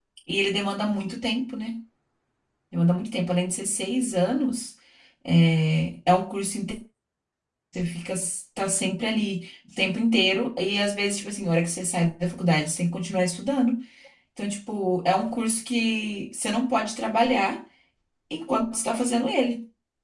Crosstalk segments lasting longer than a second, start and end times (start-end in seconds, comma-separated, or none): none